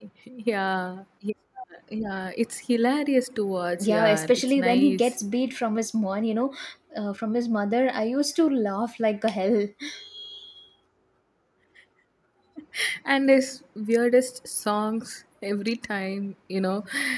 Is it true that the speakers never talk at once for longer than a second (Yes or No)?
No